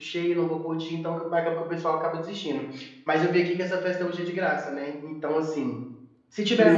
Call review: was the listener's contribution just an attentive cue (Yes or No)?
Yes